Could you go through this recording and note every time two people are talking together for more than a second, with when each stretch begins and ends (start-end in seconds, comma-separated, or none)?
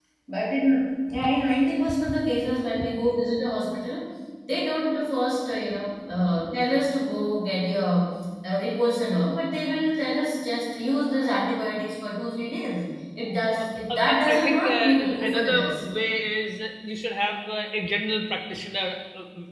13.6-15.8